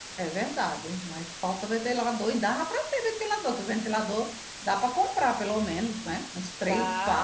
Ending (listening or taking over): taking over